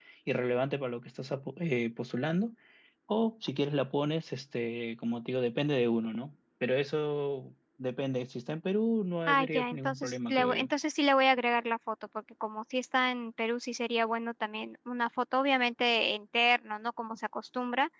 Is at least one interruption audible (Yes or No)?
Yes